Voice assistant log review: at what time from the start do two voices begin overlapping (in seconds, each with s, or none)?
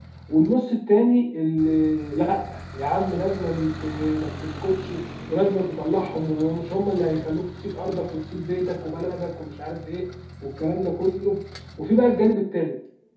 none